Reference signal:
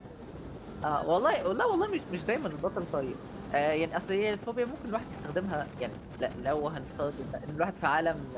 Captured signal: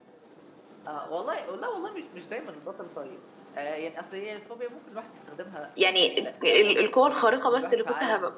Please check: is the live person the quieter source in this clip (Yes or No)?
No